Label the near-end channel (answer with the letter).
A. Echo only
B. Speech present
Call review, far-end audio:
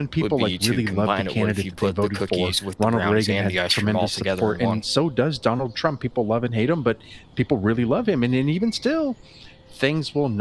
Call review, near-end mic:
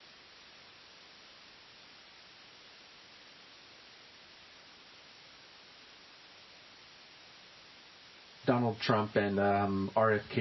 B